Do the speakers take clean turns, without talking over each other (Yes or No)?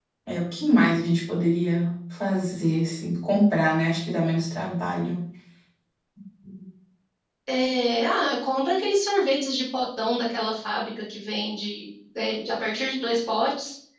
Yes